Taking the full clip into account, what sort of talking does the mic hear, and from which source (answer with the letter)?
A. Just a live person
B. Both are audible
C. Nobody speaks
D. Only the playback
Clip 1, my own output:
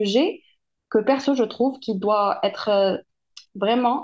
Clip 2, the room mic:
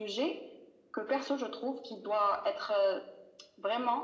D